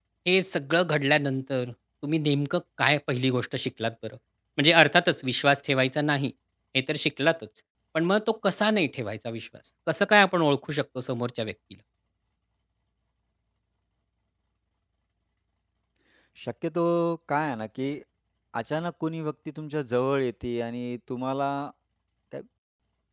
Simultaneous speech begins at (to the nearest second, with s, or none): none